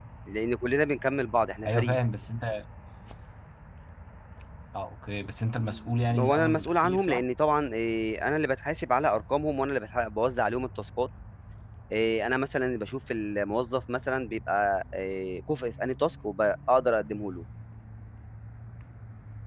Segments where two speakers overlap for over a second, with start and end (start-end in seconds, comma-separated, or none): 5.6-7.2